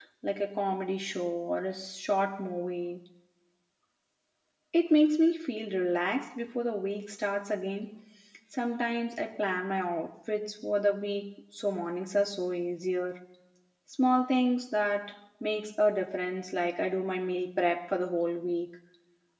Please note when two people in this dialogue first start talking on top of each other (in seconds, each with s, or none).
none